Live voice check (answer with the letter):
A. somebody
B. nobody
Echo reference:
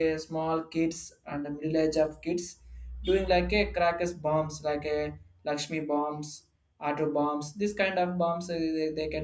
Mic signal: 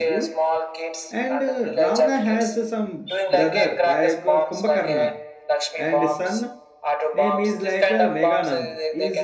A